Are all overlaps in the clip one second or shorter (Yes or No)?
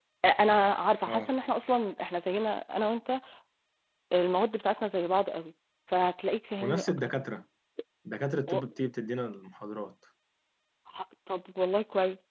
Yes